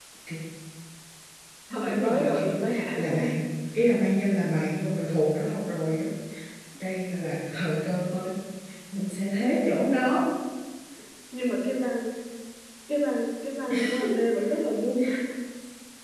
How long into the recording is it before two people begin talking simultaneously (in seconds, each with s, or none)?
1.9 s